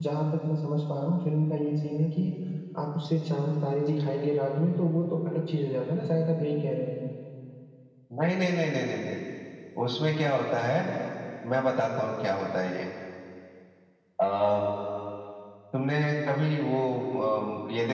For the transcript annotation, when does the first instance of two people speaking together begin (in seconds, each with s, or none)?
none